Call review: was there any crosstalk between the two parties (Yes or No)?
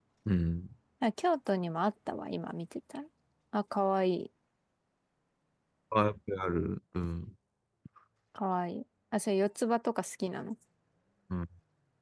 No